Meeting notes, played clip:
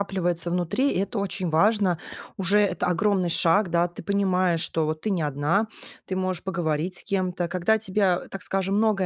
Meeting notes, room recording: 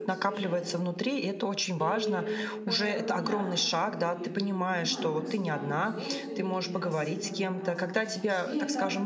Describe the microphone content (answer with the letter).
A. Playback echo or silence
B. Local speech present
B